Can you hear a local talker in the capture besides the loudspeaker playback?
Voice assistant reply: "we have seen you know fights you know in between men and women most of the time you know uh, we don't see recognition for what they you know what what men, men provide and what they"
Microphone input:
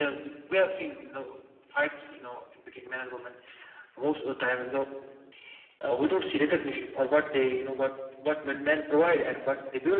No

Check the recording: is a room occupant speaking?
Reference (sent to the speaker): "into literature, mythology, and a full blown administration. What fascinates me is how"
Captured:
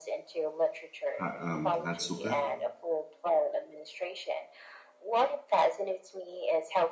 Yes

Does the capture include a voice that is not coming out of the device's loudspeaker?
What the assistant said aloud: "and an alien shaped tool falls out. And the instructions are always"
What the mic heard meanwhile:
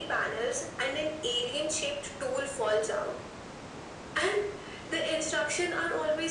No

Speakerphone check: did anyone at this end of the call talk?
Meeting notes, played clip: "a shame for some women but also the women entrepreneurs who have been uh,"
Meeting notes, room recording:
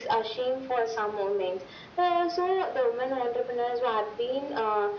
No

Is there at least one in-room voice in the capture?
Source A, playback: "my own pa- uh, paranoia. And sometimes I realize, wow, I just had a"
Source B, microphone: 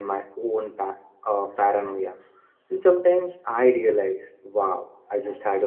No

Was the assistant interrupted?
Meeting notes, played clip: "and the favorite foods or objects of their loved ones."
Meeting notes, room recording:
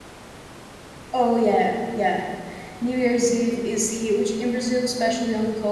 Yes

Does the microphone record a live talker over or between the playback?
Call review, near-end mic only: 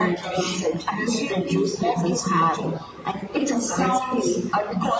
No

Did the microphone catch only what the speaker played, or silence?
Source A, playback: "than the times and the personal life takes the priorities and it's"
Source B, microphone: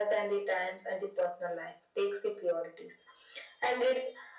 Yes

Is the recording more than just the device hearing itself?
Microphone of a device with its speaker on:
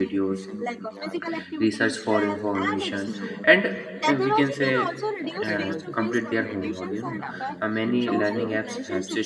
Yes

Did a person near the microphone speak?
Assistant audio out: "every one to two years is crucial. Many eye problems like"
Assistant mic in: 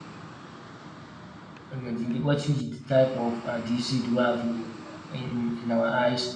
Yes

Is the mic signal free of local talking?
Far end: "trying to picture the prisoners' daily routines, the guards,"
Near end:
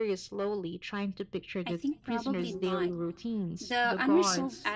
No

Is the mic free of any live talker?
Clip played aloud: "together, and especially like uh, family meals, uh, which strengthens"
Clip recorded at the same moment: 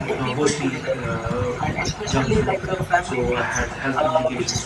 No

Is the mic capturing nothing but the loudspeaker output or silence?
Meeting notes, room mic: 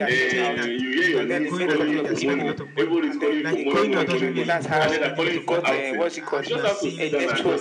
No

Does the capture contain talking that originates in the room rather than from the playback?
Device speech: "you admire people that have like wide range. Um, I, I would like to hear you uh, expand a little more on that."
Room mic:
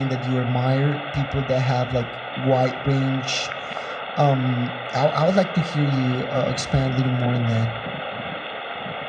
No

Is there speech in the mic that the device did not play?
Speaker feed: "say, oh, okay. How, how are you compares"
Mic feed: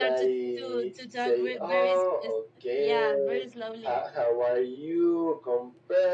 Yes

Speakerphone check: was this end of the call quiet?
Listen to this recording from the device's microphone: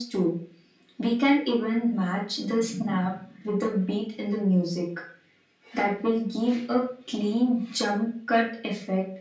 Yes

